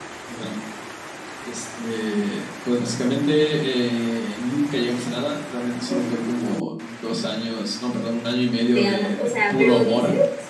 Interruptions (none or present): present